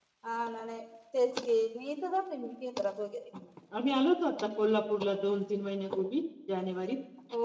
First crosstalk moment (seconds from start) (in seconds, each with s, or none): none